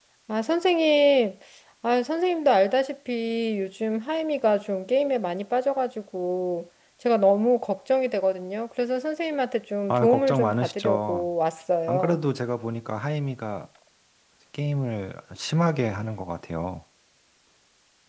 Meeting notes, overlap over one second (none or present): present